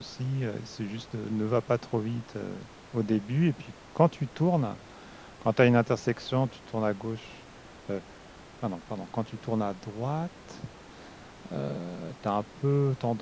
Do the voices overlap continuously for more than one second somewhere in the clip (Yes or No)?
No